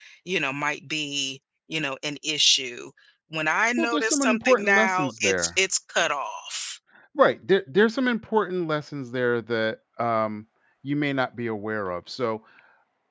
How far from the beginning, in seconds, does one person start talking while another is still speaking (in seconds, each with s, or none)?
3.8 s